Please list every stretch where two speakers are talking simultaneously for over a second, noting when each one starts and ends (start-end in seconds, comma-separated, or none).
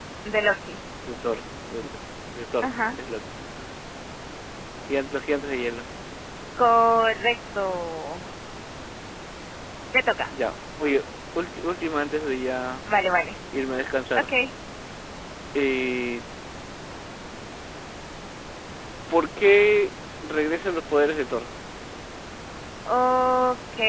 none